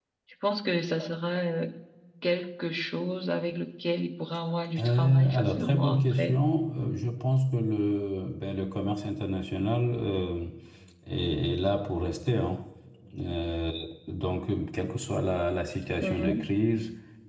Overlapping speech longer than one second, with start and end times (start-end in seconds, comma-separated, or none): 4.8-6.4